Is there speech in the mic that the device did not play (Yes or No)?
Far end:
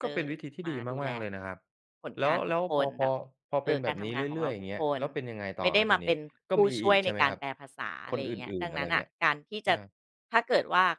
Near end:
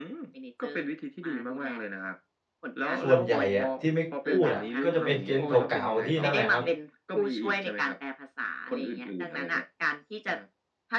Yes